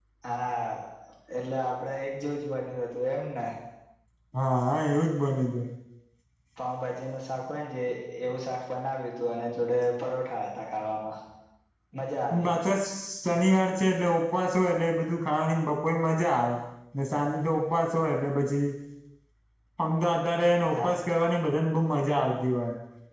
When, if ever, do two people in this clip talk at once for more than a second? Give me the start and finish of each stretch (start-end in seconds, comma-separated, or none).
none